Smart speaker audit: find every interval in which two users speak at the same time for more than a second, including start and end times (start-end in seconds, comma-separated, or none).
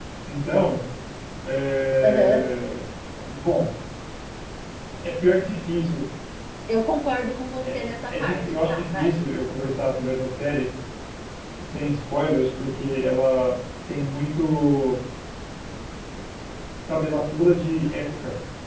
7.6-9.1